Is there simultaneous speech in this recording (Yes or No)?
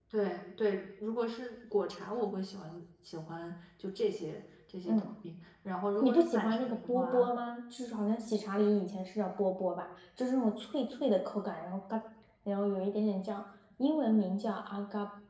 Yes